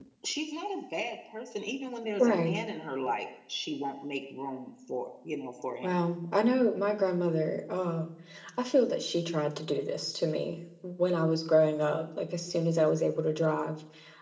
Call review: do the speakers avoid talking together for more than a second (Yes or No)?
Yes